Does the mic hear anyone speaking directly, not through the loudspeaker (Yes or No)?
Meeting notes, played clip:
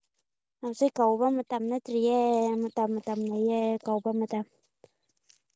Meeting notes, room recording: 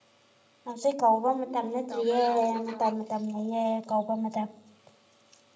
Yes